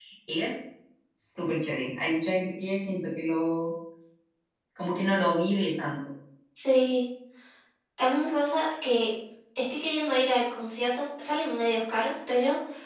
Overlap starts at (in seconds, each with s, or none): none